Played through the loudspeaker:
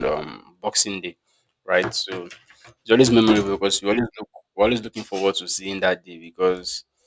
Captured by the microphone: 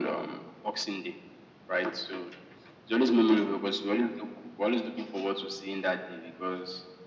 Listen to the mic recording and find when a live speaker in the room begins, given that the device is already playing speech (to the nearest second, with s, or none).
none